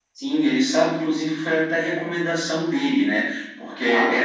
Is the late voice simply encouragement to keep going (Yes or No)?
Yes